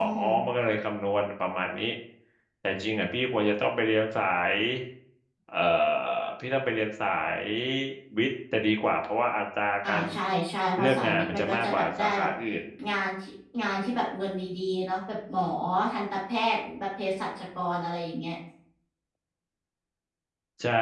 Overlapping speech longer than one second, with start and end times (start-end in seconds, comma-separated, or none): 10.8-12.3